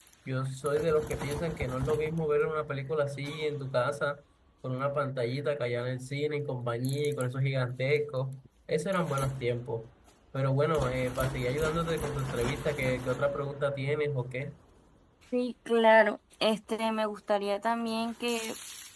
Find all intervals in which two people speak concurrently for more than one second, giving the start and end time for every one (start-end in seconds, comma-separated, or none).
none